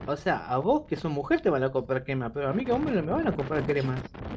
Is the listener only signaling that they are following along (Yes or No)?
No